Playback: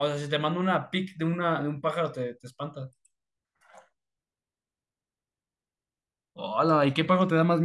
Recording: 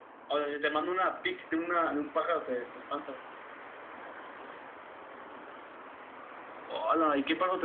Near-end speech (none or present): none